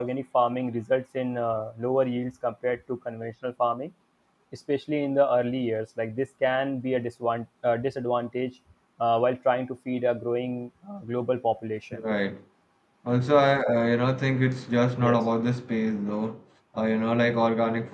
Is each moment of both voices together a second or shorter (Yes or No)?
Yes